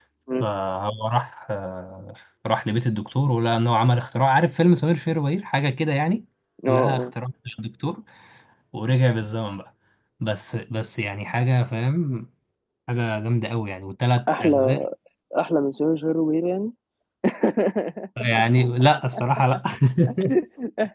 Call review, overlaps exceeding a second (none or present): none